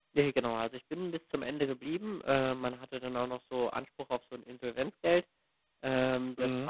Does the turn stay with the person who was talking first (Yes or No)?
Yes